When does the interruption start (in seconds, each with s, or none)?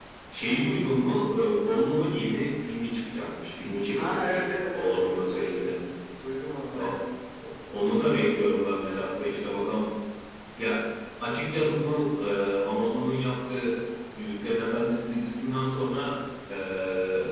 3.9 s